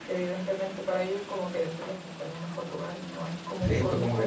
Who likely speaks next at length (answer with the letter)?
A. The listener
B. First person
A